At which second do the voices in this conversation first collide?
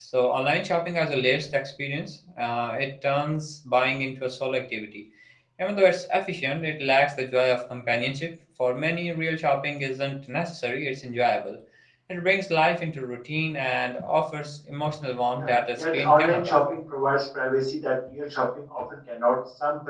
15.4 s

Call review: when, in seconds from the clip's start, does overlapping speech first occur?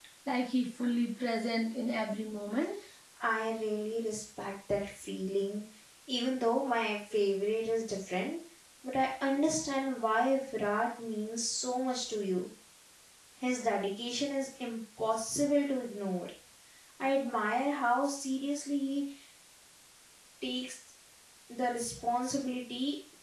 none

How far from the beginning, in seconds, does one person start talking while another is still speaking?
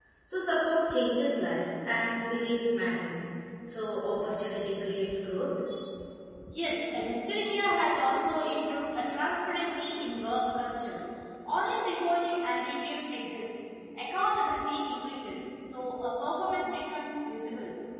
none

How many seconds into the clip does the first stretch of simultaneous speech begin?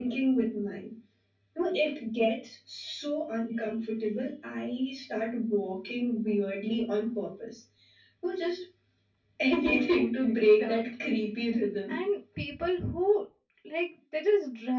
9.7 s

